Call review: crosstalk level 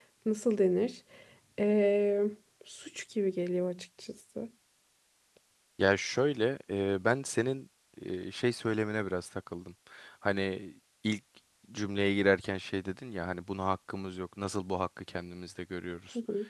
none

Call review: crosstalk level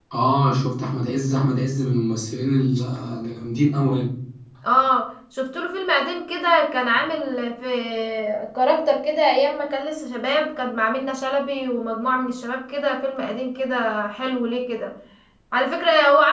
none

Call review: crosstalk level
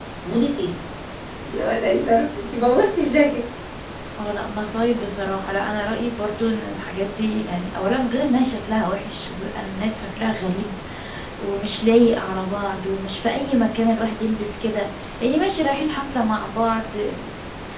none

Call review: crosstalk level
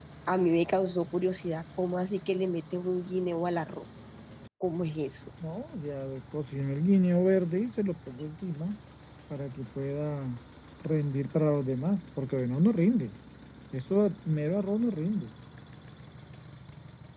none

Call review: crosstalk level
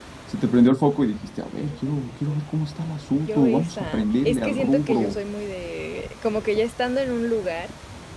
present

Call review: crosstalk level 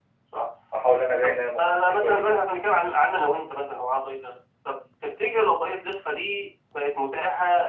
present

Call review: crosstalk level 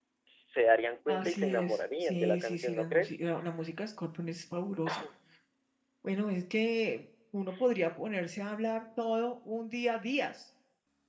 present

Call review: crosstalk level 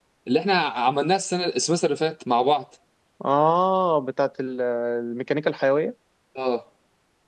none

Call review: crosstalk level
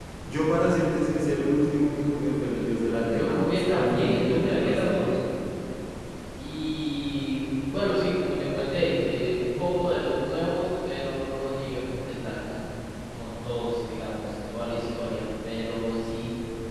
present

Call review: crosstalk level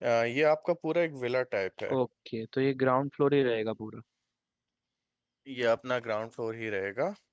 none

